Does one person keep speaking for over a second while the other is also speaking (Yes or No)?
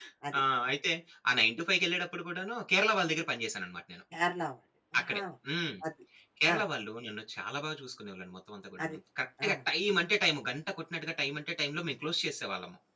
No